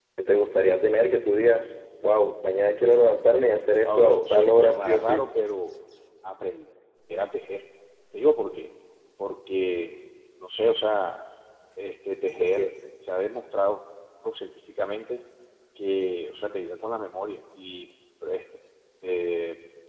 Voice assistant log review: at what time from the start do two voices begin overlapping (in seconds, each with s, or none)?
3.8 s